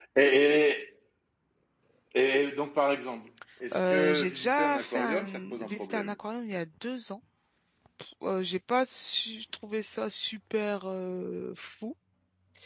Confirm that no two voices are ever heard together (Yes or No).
No